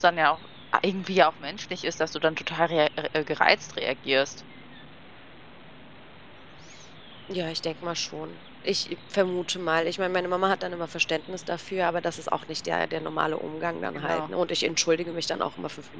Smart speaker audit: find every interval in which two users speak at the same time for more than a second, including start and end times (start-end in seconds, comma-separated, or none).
none